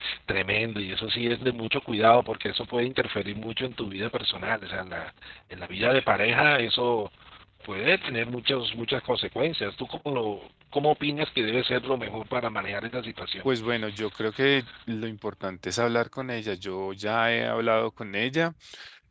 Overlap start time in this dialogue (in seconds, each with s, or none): none